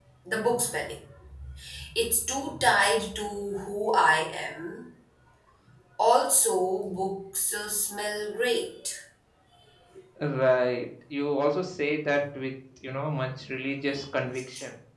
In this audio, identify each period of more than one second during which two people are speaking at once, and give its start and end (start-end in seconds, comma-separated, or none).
none